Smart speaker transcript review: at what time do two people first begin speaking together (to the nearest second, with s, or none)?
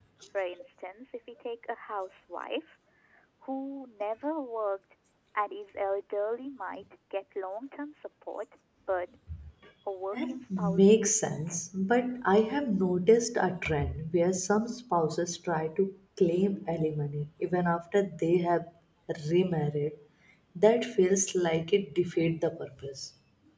10 s